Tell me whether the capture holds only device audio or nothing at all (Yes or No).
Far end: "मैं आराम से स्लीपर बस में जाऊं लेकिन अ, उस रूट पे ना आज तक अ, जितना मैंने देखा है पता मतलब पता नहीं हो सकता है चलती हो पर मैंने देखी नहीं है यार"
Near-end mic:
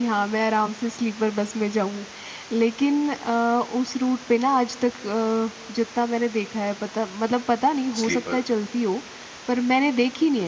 No